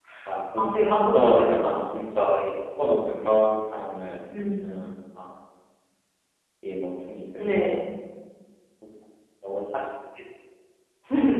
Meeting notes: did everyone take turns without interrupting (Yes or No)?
No